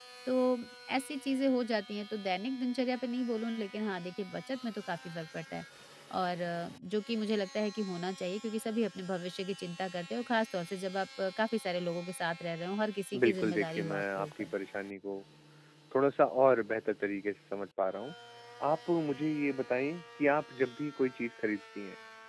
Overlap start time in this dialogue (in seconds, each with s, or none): 13.1 s